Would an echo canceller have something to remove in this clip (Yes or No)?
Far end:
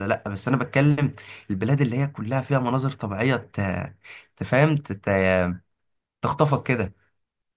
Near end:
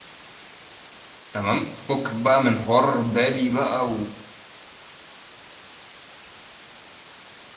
No